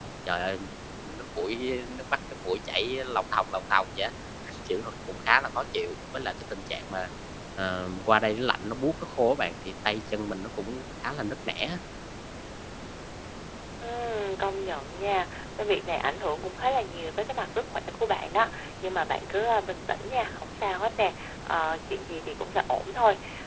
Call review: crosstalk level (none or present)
none